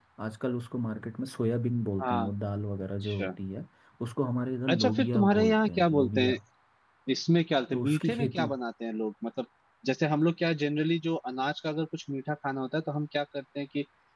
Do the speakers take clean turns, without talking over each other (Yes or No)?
No